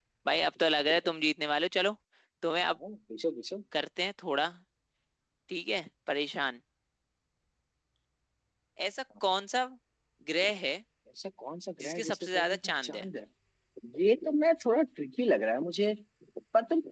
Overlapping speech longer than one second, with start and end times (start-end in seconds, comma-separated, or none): 11.8-13.1